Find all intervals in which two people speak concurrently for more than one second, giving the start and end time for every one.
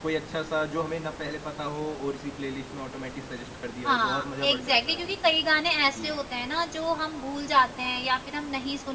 3.9-5.3

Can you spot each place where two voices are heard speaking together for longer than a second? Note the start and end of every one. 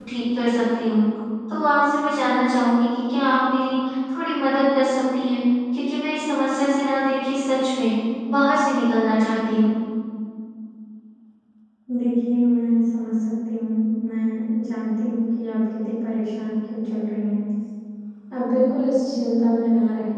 none

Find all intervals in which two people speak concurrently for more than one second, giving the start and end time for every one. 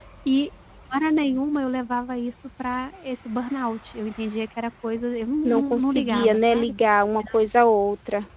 5.4-6.7

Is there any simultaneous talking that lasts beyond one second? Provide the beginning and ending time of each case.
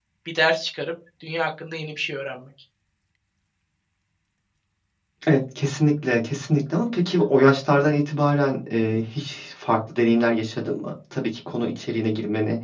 none

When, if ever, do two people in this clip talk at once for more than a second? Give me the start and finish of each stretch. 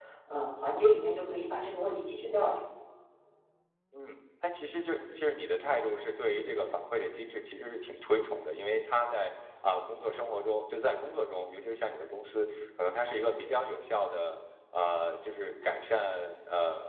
none

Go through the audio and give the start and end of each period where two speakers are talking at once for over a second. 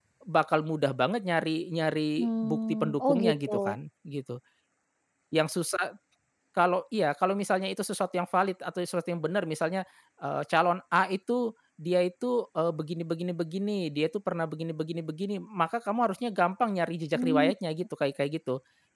2.2-3.5

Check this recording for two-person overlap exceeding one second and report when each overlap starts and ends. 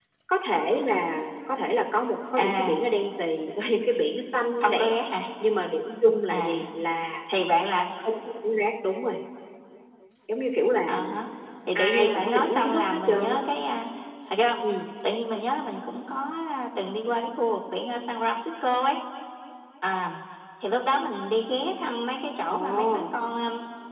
11.8-13.4

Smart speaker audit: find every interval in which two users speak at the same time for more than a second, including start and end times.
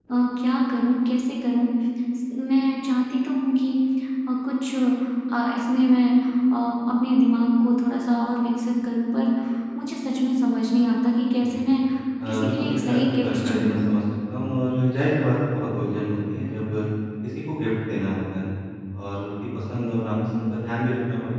12.3-13.8

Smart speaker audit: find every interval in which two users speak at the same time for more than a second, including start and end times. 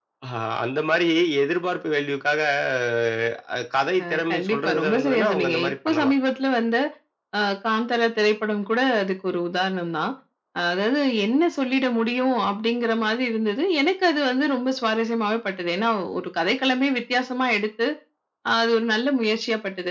4.0-6.1

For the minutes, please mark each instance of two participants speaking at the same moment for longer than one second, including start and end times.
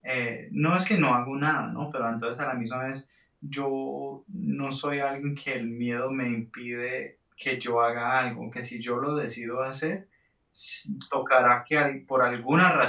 none

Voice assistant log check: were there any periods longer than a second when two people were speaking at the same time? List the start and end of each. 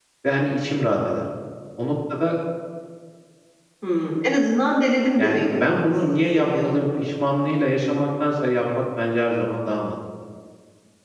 5.2-6.6

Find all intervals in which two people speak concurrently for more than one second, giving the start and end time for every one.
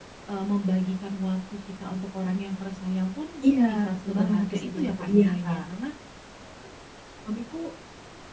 3.4-5.6

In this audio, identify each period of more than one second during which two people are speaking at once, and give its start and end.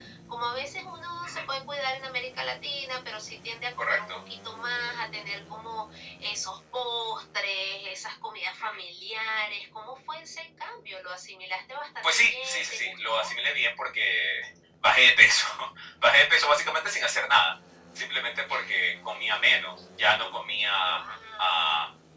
12.0-13.3

